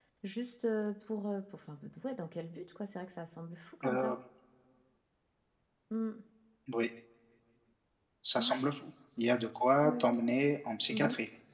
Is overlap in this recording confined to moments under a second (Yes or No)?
Yes